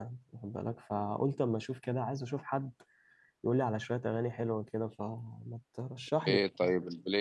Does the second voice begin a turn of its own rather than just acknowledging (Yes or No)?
Yes